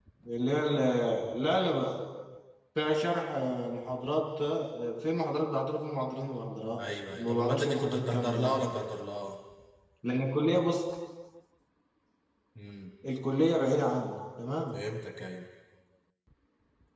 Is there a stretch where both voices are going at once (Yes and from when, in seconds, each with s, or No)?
Yes, from 6.8 s